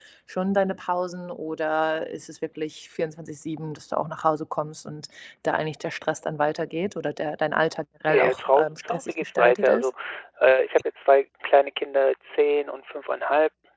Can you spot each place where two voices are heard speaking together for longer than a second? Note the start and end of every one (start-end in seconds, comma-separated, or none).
8.1-9.9